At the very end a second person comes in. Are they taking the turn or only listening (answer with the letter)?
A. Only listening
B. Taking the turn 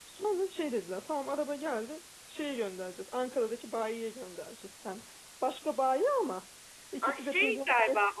B